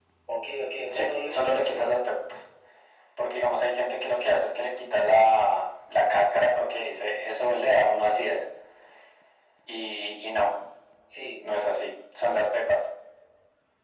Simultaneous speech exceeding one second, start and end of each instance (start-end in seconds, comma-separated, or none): 0.9-2.1